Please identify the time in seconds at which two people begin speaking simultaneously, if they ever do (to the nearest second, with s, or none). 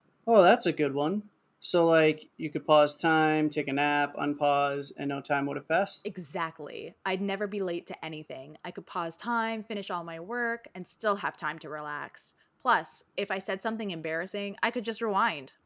none